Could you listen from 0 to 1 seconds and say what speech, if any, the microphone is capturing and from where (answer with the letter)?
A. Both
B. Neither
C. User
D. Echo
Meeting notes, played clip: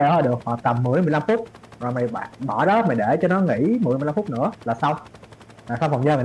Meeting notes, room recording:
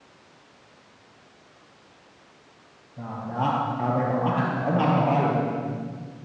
B